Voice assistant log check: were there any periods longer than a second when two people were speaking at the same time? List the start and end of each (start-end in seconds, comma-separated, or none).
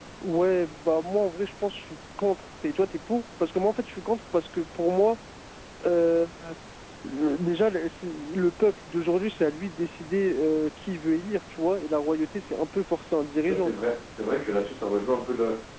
none